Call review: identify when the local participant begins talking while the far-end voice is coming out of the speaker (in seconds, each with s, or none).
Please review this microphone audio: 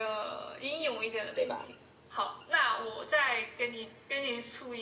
1.3 s